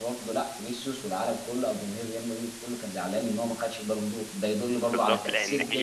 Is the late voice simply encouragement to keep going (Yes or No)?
No